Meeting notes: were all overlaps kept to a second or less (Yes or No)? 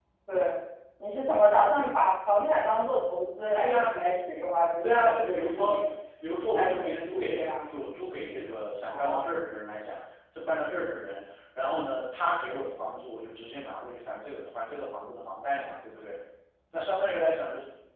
No